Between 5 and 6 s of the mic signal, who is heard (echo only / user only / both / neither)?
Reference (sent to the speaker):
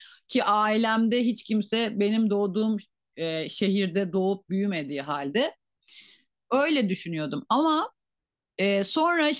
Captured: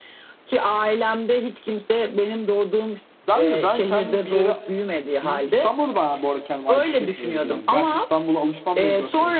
both